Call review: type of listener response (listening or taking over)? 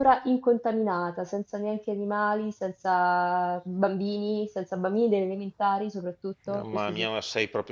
taking over